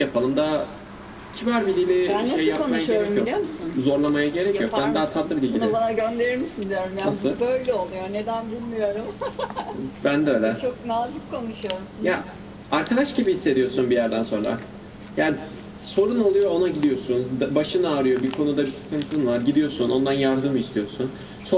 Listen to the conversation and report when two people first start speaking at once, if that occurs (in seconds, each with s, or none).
2.1 s